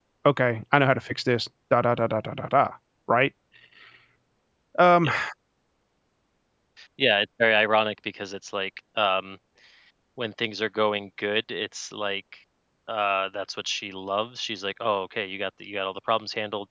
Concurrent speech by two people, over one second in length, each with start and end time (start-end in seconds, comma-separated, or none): none